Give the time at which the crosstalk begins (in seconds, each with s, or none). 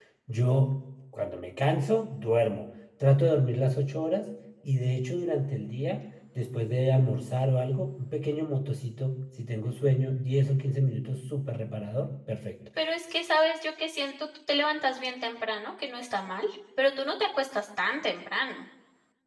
none